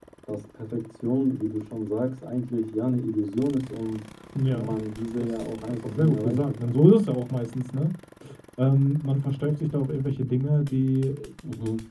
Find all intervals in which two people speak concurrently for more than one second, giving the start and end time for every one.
5.2-6.8

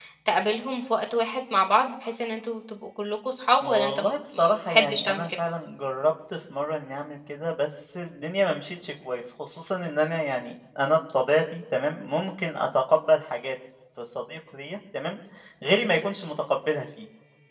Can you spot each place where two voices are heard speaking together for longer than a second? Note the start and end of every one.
3.6-5.3

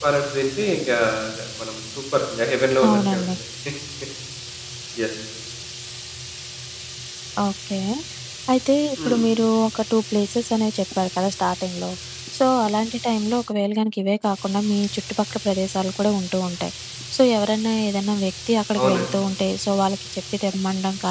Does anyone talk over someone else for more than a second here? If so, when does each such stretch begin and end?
none

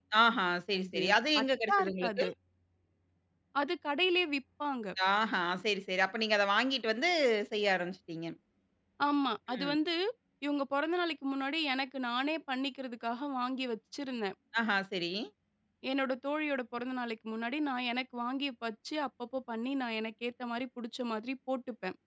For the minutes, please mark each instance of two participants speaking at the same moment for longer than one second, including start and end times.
0.8-2.2

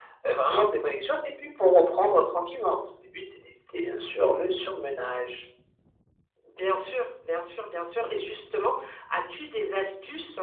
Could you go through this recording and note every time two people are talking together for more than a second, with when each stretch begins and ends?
none

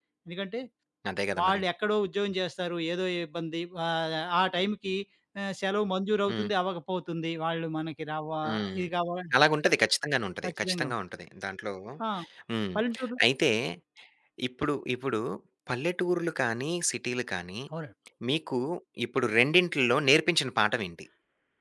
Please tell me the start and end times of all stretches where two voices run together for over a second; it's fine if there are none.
none

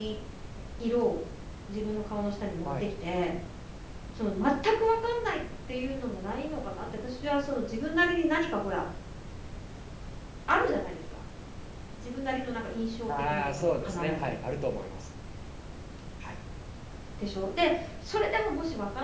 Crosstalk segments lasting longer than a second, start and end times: 13.1-14.3

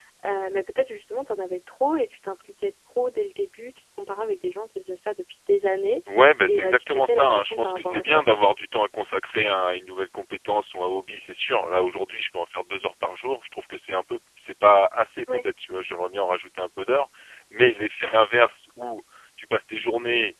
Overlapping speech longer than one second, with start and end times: 6.5-8.5

